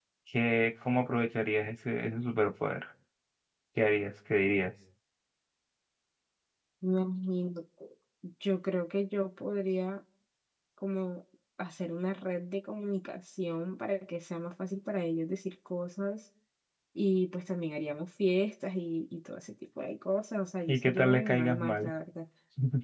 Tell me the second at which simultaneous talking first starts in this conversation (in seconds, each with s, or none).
20.7 s